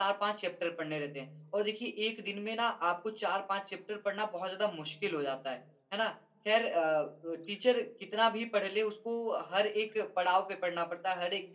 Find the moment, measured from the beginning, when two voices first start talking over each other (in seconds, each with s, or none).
none